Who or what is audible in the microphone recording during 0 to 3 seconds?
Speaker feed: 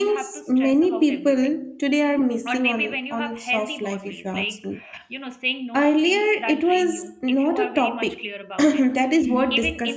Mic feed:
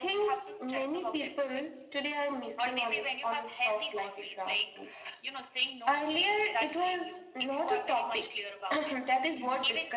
echo only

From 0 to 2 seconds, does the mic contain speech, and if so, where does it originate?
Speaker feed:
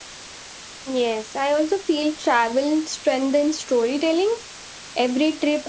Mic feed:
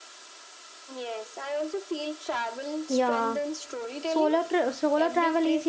echo only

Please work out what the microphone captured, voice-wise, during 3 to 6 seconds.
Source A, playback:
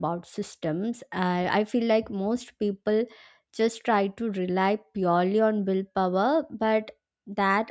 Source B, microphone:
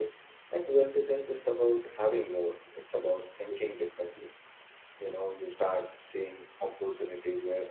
user only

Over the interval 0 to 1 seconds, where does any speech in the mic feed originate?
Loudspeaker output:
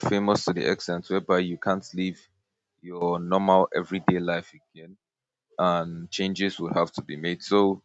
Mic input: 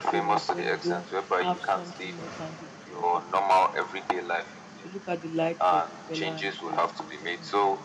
both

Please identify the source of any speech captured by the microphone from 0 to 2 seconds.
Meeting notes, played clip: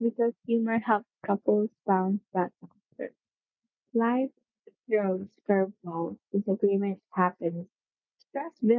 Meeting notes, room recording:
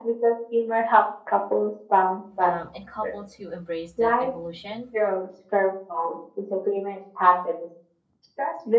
echo only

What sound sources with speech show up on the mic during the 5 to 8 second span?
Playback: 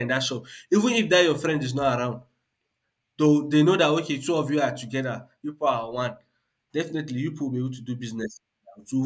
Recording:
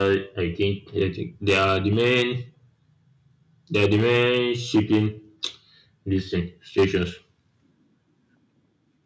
user only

